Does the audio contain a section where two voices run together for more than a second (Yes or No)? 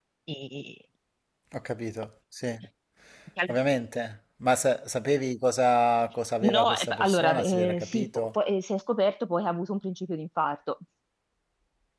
Yes